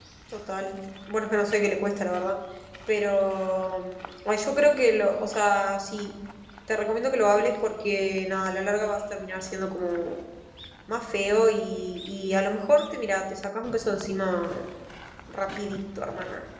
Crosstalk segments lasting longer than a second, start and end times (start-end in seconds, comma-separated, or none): none